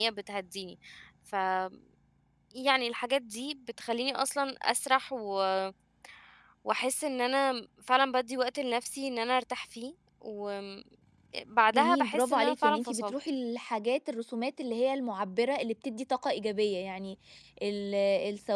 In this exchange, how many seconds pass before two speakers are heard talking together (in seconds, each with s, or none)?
11.7 s